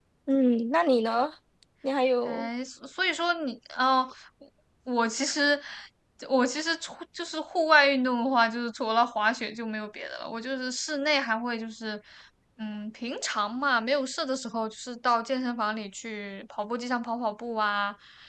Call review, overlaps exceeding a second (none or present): none